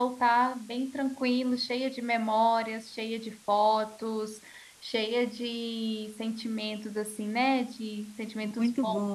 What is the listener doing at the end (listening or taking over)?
taking over